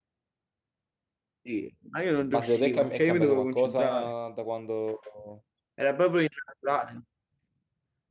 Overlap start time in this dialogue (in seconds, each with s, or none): 2.3 s